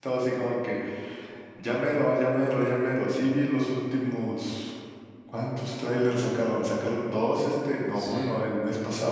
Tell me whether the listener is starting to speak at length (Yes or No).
No